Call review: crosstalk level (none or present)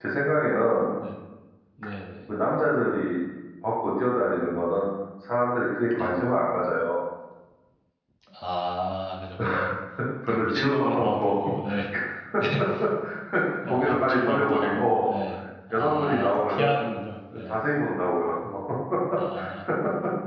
present